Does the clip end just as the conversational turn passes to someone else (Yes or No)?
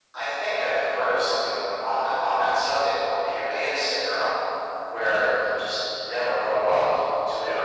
No